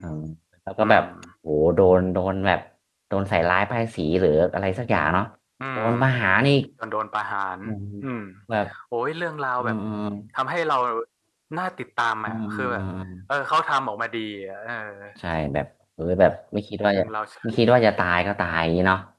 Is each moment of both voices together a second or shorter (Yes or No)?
Yes